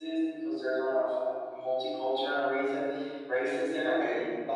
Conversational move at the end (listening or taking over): listening